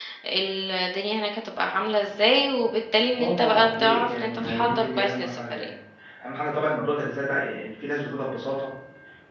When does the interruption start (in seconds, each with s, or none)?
3.2 s